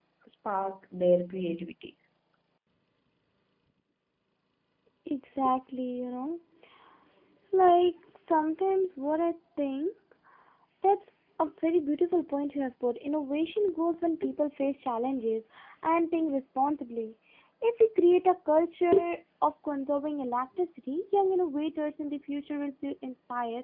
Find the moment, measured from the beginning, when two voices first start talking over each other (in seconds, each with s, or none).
none